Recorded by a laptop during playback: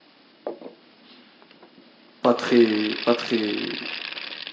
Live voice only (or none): pas très, pas très,